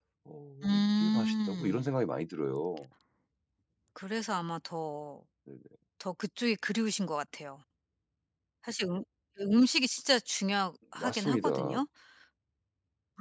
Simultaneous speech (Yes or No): Yes